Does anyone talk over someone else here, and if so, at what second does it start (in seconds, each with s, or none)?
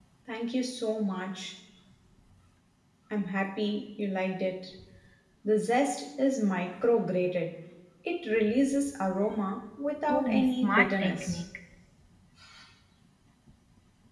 10.1 s